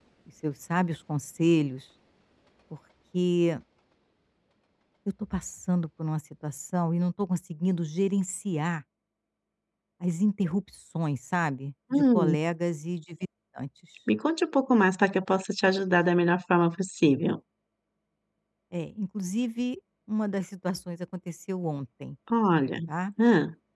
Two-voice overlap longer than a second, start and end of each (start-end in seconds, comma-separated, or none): none